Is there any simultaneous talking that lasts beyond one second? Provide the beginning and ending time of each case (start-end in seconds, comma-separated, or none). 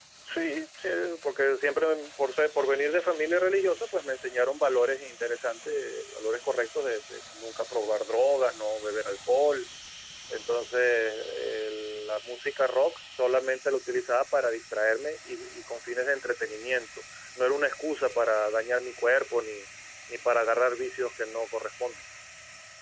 none